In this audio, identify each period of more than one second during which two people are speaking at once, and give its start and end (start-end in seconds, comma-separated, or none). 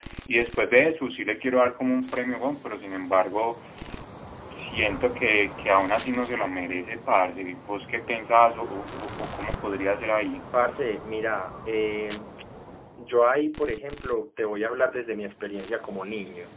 none